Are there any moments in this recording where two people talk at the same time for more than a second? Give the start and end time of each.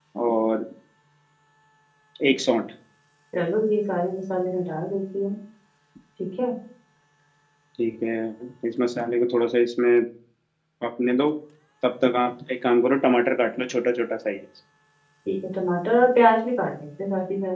none

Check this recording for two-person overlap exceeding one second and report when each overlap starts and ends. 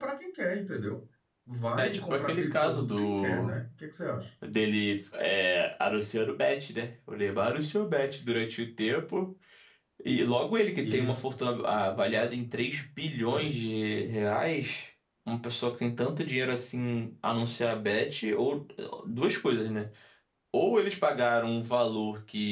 1.8-3.5

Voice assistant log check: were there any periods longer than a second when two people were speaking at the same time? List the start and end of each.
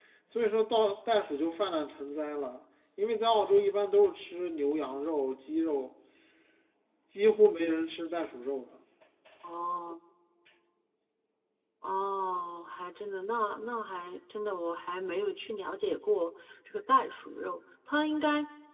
none

